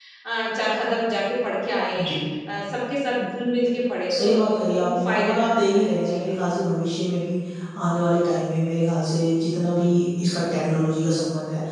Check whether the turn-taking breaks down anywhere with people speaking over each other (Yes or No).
Yes